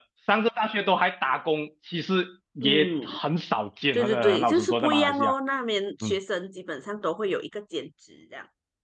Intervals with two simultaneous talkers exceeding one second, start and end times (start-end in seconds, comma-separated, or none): 3.9-5.3